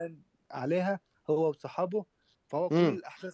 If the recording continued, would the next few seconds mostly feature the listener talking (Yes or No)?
No